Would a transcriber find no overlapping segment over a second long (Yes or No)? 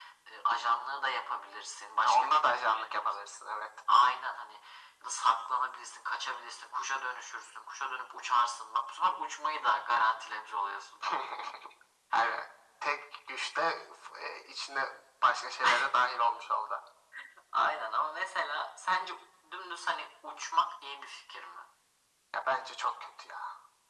No